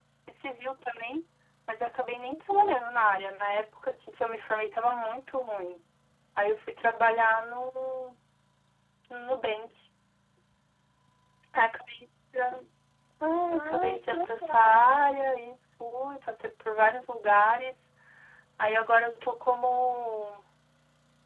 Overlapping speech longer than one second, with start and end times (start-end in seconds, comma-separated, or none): 13.5-15.0